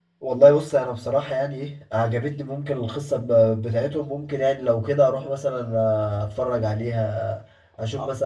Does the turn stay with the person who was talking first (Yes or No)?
No